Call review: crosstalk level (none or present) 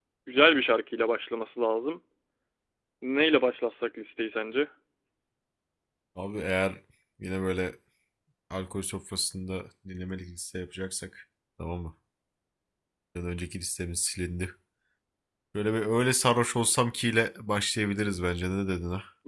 none